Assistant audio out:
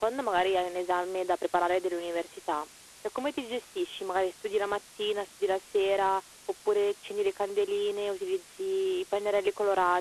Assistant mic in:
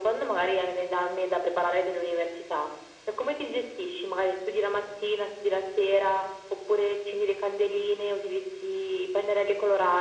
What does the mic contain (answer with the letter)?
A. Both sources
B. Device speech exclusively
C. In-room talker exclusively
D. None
B